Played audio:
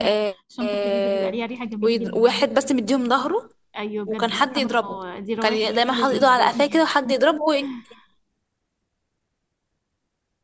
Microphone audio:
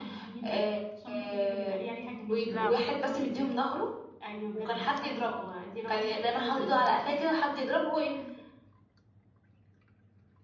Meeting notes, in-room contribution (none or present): present